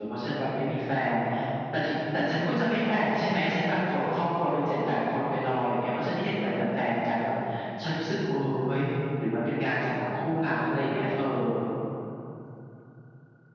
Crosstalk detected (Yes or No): No